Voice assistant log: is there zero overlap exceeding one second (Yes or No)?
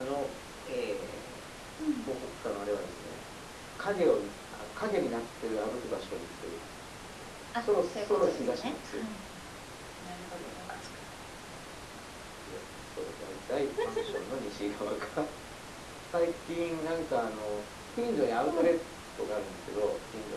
No